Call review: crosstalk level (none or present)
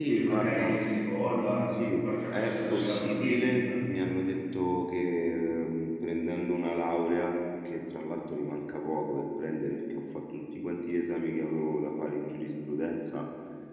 present